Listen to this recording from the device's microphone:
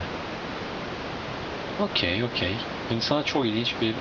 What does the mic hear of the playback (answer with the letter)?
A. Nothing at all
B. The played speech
A